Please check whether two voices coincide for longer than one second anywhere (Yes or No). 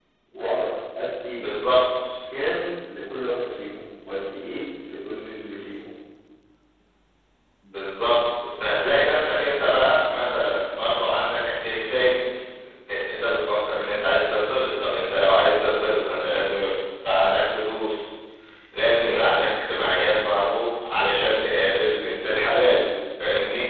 No